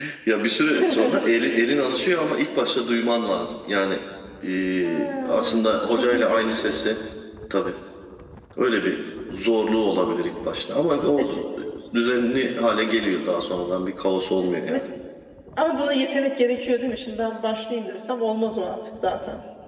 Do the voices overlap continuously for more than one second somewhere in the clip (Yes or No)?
Yes